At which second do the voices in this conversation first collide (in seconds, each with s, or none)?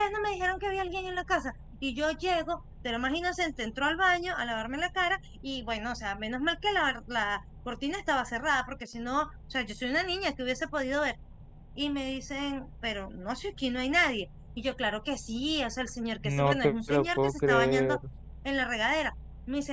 16.2 s